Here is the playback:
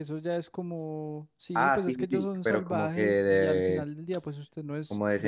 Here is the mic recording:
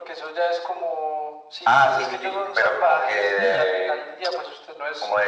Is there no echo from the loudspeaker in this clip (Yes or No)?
No